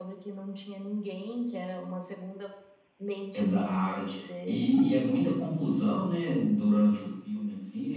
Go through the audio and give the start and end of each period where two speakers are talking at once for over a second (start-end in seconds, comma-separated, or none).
3.3-4.8